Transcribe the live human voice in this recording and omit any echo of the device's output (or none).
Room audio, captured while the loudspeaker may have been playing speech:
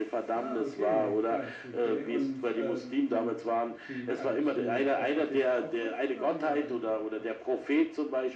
Ah, okay, krass, okay. Und ähm, wie, also bist du auch atheistisch aufgewachsen oder wie war deine Aufwachsphase?